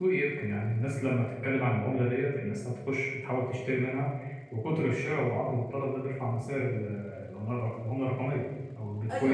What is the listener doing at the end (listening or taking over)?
taking over